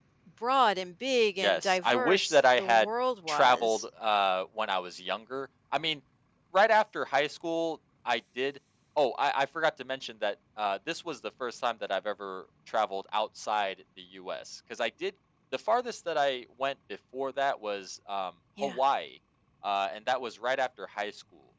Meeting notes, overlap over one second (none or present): present